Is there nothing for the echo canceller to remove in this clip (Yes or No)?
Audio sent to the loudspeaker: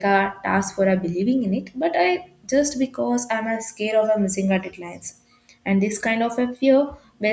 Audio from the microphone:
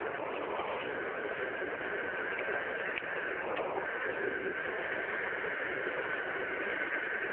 Yes